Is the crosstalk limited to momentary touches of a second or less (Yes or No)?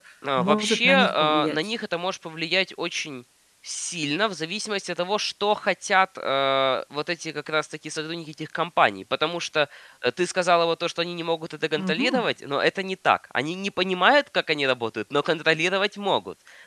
No